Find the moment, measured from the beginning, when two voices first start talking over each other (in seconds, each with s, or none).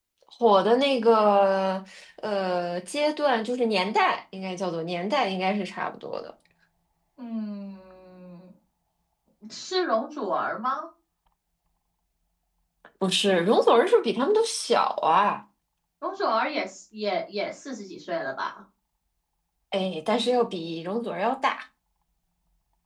none